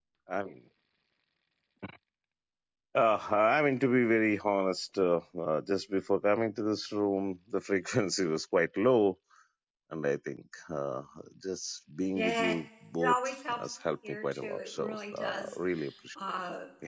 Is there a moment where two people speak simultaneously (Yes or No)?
Yes